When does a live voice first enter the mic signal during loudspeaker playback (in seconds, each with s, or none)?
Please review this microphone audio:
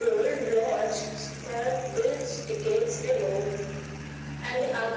none